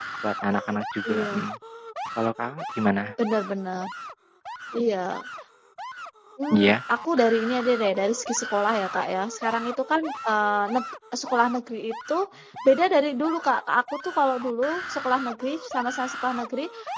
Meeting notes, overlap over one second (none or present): none